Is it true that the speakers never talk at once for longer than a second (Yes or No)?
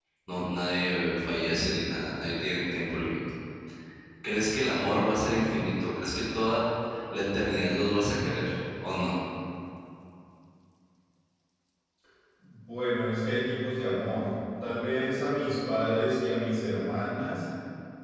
Yes